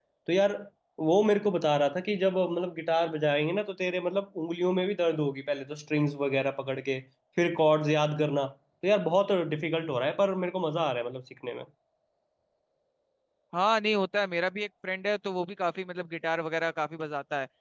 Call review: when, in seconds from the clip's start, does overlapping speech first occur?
none

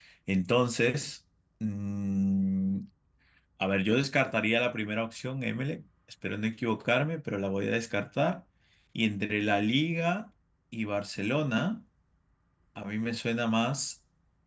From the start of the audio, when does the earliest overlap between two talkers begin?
none

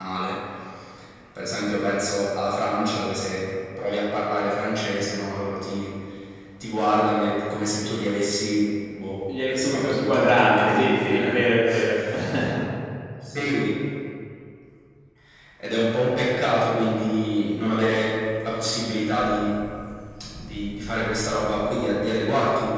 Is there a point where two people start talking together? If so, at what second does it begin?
9.3 s

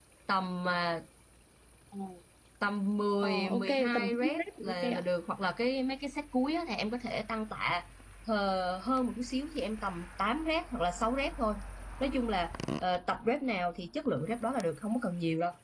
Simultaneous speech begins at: 3.2 s

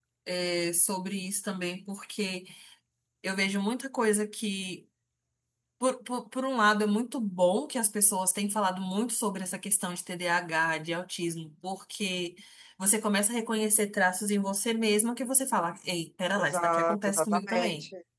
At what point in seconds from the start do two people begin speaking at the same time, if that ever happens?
16.4 s

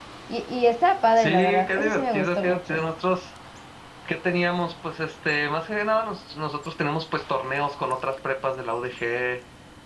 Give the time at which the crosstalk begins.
1.2 s

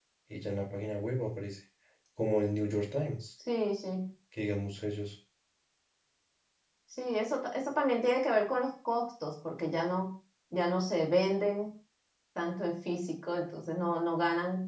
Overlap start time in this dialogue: none

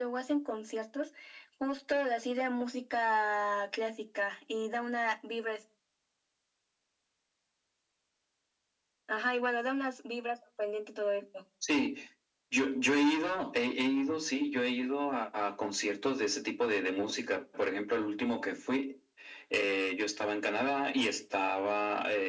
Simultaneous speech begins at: none

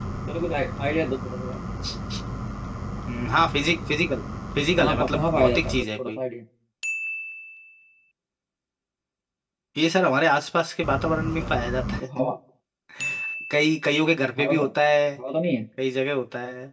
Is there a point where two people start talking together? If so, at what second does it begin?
4.8 s

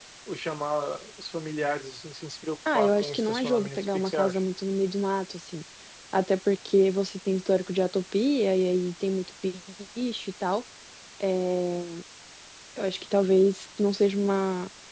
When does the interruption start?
2.6 s

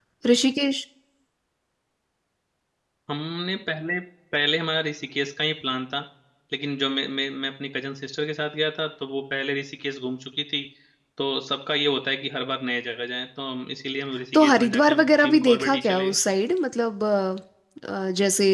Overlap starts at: 14.3 s

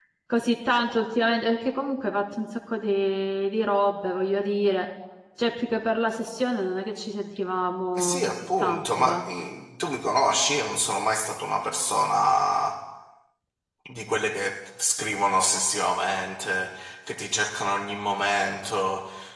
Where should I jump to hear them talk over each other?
8.0 s

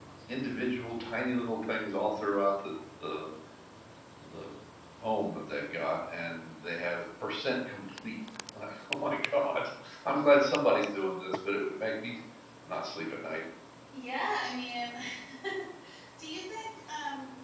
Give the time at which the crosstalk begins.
none

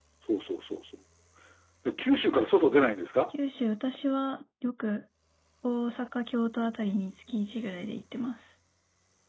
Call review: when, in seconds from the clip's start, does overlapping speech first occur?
none

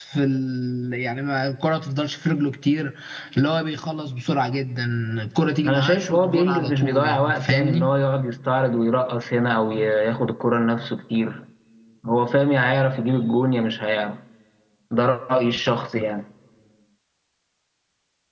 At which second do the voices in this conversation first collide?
5.7 s

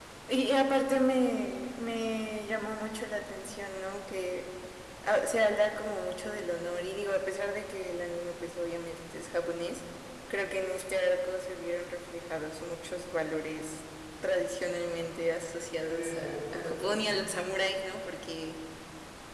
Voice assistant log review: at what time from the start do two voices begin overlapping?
15.8 s

